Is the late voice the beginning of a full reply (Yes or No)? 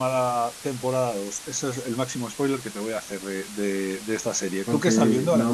Yes